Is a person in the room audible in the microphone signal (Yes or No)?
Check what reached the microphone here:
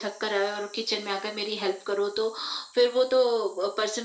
No